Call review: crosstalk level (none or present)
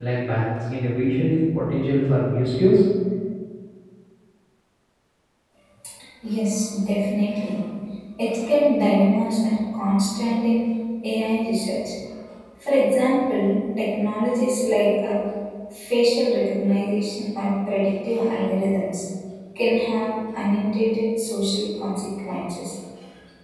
none